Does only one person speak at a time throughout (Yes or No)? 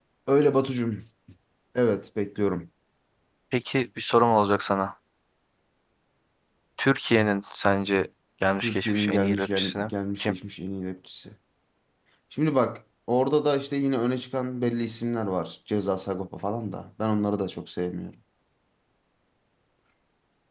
No